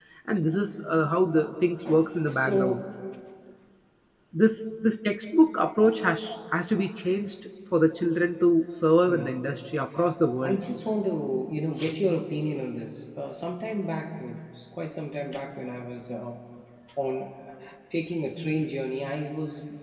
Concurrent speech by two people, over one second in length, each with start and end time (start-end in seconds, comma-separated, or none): none